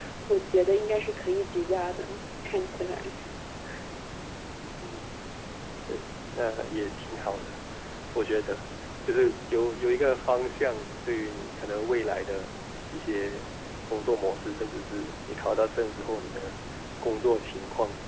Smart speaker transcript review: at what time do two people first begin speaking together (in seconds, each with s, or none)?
none